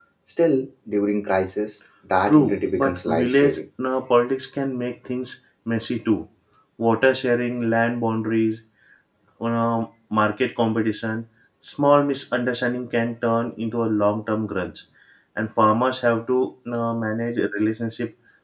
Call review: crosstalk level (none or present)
present